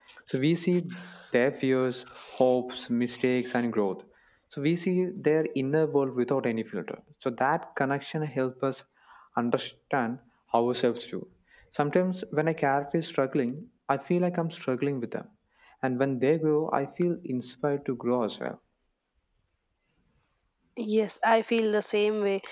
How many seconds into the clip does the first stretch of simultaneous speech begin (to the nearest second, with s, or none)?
none